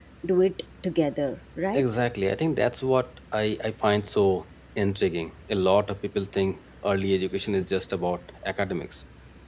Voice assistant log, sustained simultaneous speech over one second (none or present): none